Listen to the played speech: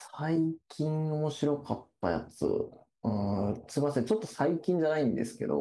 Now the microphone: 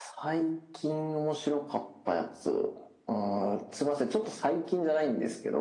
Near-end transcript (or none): none